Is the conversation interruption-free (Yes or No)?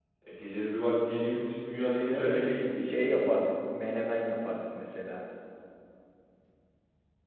No